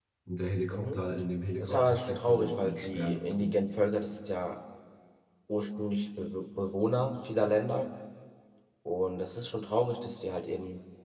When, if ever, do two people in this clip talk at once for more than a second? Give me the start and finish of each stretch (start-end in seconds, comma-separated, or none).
1.6-3.6